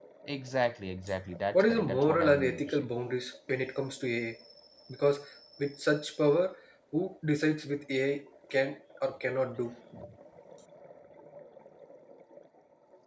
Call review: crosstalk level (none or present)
present